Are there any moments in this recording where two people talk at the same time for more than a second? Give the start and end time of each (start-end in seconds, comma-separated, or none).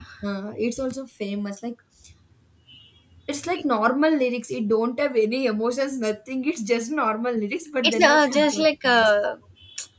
7.8-9.1